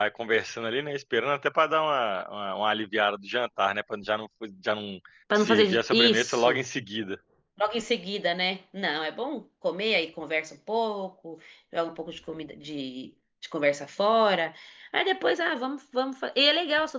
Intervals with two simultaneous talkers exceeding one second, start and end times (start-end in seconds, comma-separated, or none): 5.3-6.6